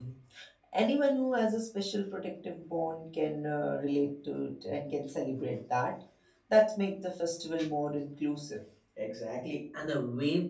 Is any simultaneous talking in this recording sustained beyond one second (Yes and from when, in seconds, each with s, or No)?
No